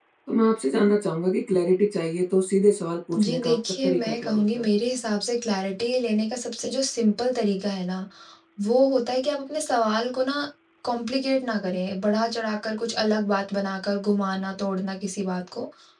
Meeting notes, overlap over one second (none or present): present